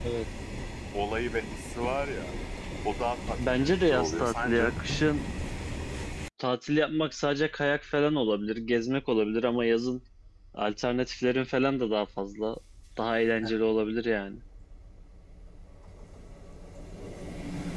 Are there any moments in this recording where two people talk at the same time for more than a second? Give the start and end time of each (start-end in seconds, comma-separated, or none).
3.5-4.7